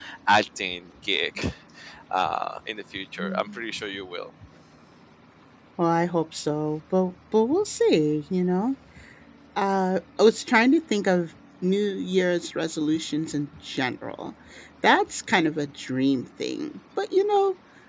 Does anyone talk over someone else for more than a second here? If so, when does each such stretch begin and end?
none

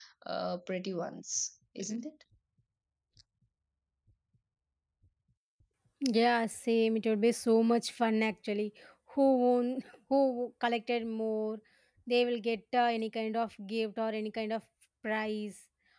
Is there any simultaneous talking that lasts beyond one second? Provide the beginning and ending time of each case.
none

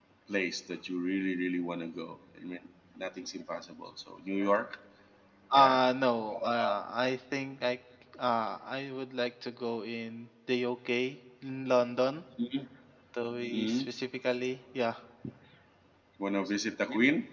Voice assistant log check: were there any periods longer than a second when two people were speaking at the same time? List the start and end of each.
none

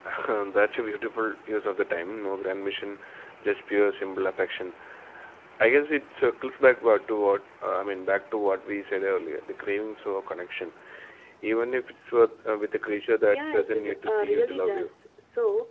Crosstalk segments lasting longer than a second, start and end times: 13.3-14.9

